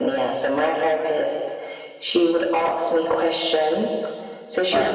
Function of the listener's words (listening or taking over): listening